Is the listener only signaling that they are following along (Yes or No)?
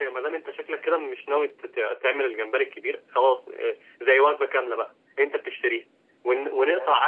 Yes